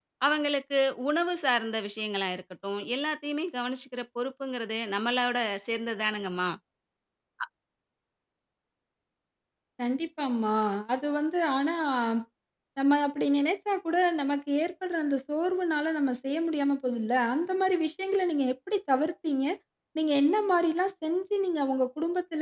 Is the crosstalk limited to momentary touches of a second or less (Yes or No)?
Yes